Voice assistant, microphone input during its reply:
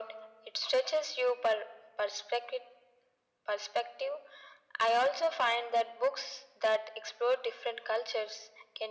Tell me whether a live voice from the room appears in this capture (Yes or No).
No